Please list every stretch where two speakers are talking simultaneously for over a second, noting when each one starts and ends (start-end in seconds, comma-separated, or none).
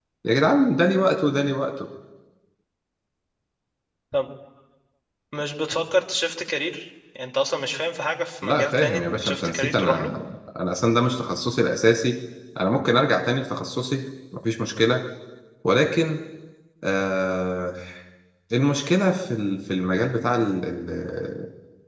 8.4-10.1